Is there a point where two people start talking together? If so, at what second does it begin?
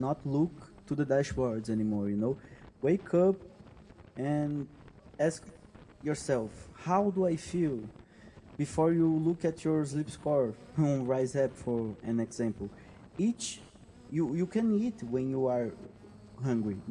none

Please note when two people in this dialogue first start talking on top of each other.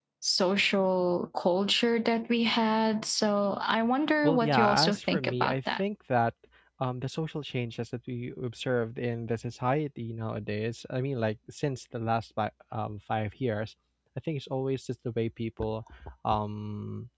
4.2 s

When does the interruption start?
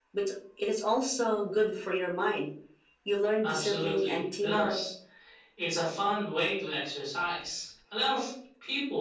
3.4 s

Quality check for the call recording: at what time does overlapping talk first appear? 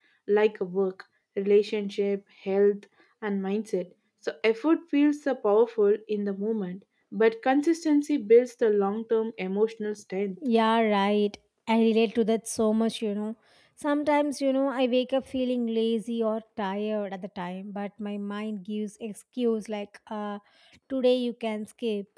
none

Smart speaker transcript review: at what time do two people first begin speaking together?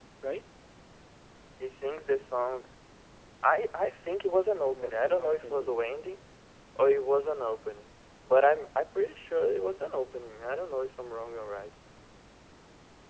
4.6 s

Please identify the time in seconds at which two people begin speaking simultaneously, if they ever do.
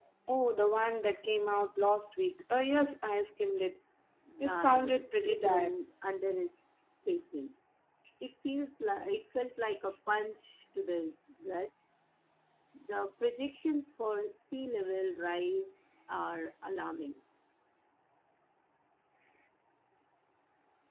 4.4 s

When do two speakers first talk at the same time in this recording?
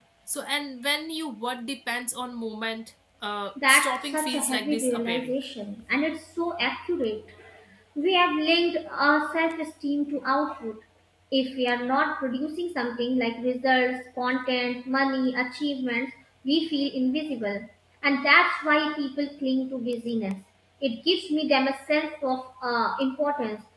3.6 s

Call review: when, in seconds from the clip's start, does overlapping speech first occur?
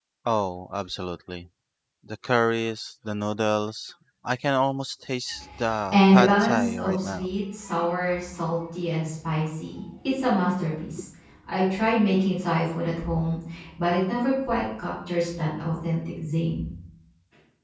5.9 s

